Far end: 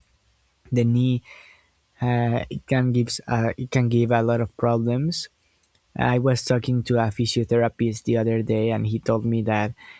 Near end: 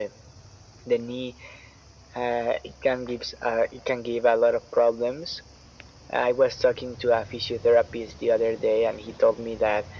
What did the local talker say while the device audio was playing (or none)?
none